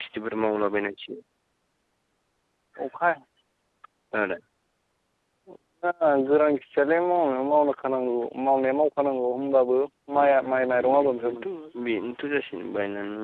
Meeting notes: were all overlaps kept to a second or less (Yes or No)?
No